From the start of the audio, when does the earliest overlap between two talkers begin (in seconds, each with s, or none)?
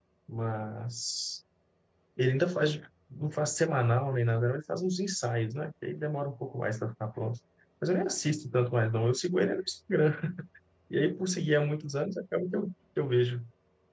none